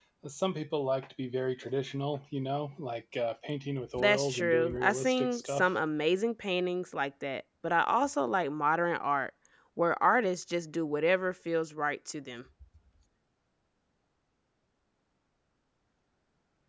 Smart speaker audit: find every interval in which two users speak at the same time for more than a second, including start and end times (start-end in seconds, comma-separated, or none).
3.9-5.7